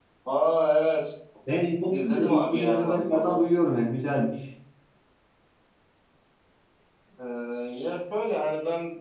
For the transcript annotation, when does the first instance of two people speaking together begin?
1.9 s

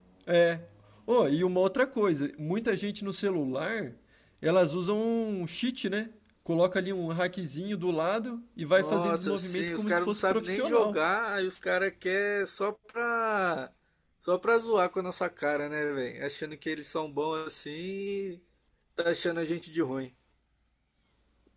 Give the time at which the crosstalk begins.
8.8 s

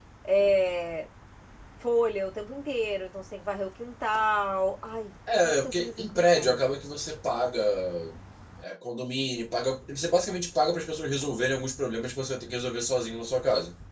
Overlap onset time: 5.3 s

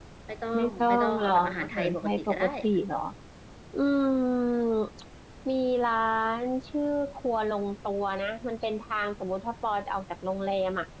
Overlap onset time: 0.6 s

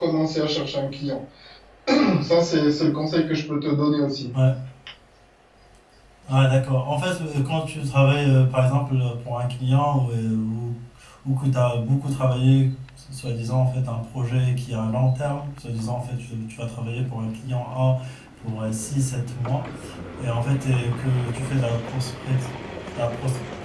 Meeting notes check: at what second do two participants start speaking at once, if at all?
none

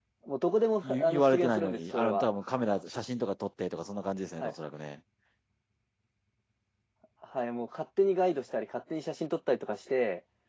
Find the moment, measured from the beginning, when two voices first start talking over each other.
0.8 s

